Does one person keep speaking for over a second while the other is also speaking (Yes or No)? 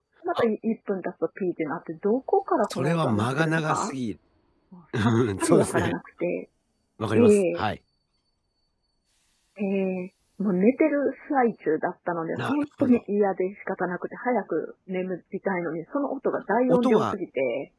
Yes